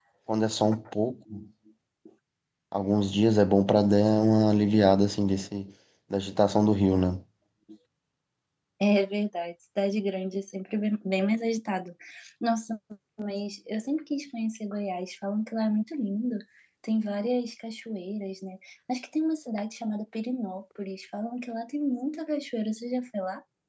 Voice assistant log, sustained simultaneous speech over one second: none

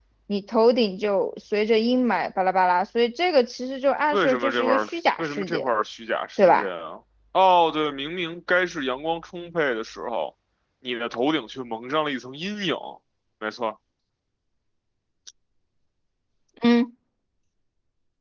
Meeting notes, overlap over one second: present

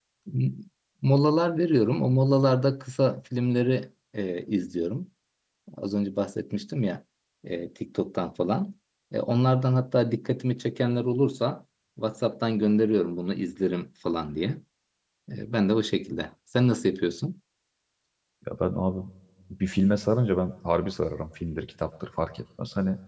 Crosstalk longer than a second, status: none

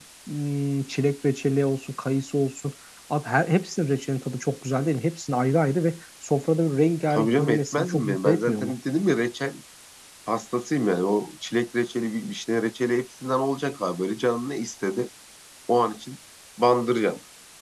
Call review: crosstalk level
present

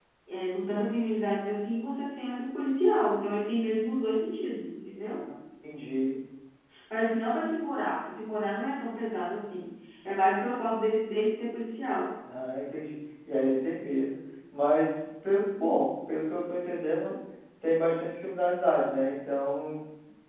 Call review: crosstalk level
none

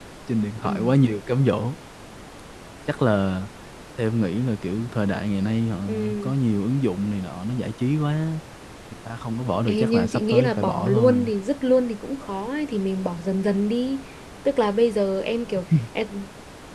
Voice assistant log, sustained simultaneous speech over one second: present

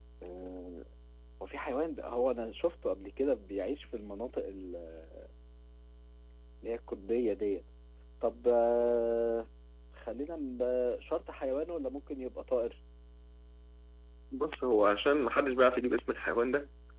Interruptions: none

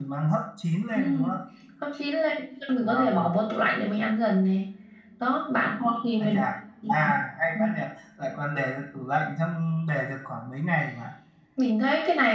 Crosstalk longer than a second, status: none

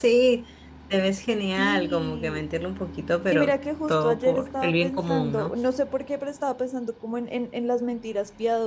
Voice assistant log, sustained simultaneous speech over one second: present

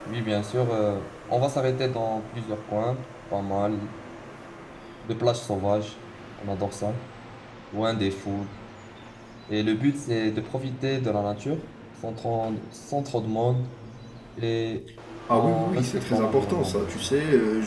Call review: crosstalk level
present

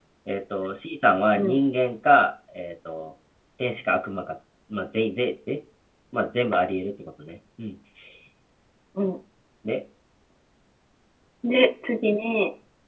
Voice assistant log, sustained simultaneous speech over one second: none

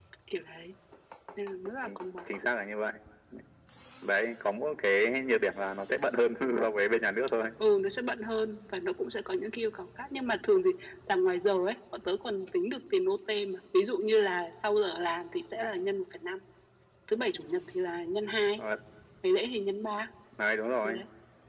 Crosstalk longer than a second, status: none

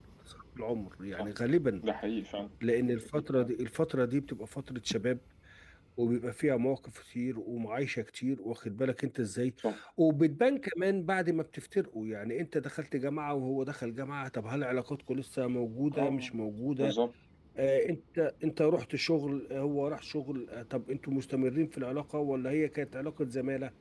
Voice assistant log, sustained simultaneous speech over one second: none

